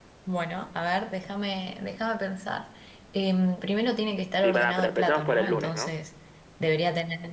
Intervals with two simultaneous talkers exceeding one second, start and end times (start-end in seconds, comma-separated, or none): 4.4-5.9